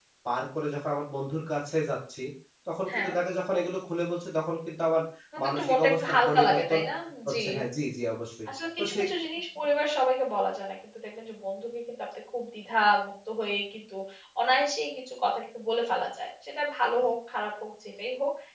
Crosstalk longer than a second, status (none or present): present